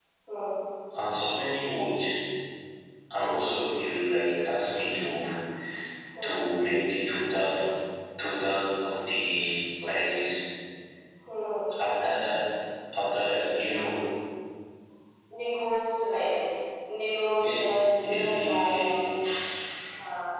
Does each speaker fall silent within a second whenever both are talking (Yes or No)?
No